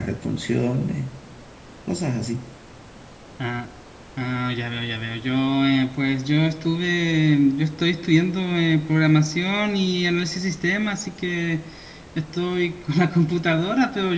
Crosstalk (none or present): none